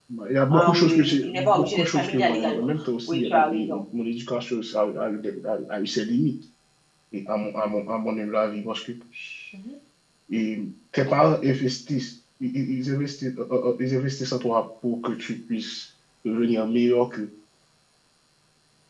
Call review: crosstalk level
present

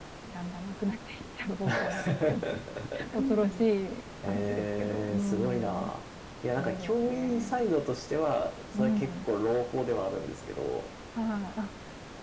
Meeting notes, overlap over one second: present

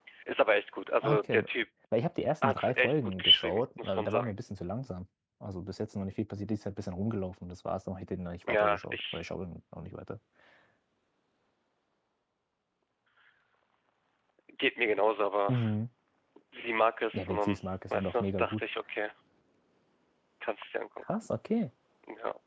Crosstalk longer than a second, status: present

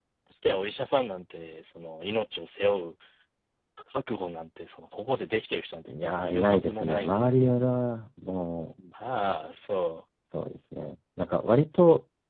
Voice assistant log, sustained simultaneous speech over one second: present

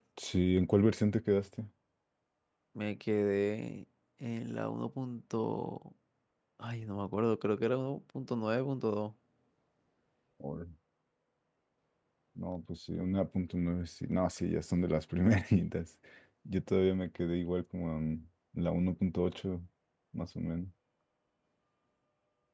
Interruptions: none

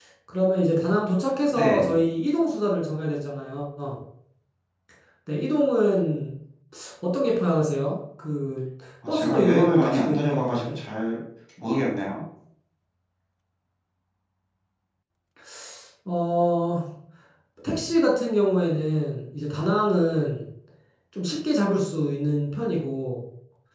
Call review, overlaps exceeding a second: present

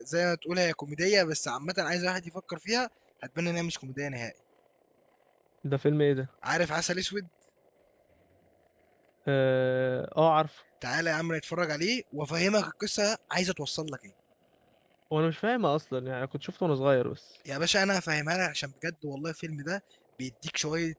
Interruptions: none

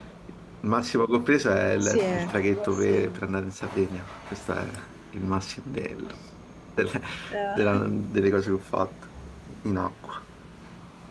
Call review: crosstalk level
present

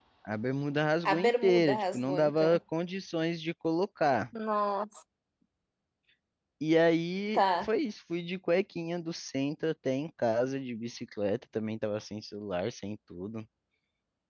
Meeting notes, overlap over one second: present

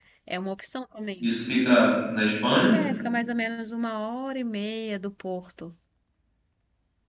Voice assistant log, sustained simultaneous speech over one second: none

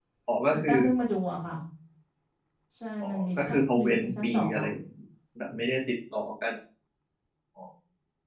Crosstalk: present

